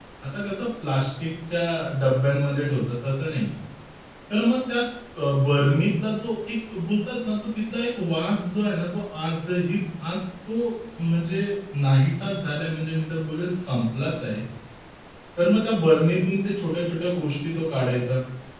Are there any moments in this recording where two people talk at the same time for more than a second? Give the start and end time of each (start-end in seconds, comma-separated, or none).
none